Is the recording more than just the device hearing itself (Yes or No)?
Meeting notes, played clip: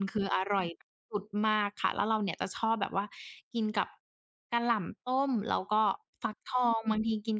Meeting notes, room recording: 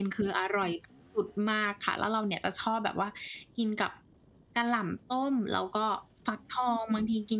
No